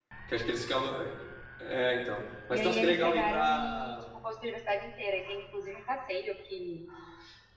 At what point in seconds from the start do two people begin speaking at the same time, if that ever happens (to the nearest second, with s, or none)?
3 s